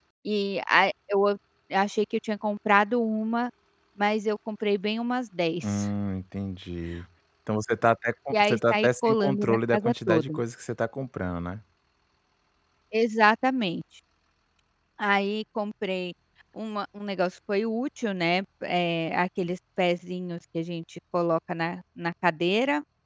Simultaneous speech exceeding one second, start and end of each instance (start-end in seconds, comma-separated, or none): 8.3-10.4